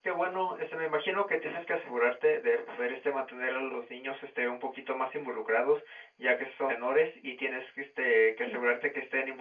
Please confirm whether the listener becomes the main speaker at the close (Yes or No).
No